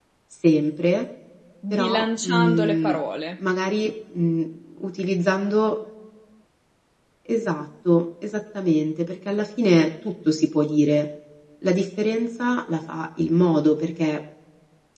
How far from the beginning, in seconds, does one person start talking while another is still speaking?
2 s

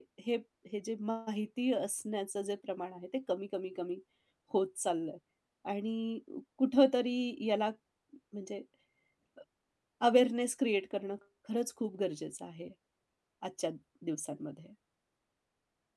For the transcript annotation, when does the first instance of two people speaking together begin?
none

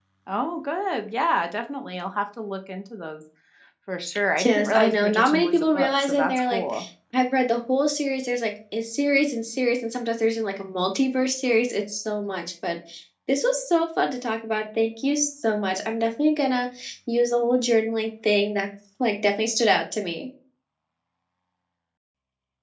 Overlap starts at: 4 s

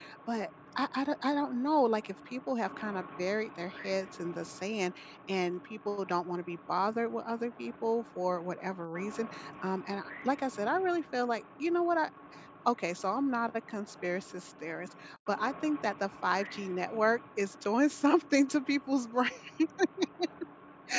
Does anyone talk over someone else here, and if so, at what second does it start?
none

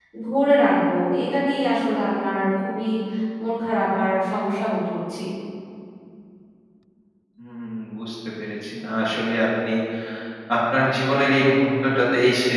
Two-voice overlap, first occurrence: none

